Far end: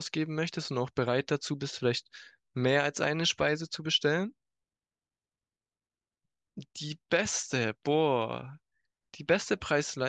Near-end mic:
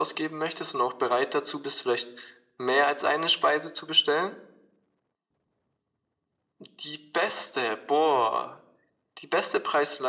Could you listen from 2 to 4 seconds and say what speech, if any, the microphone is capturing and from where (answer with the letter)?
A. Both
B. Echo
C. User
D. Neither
B